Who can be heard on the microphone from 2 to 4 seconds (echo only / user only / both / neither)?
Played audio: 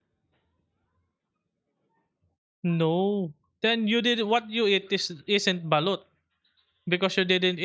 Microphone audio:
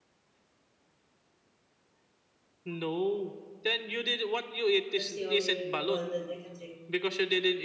echo only